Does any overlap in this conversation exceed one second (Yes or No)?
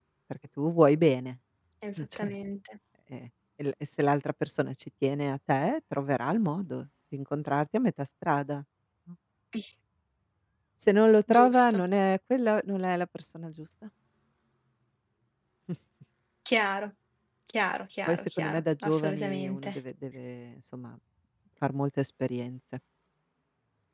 Yes